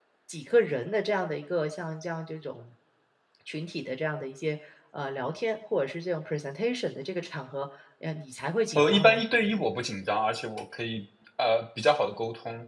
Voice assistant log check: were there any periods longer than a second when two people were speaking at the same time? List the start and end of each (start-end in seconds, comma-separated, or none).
none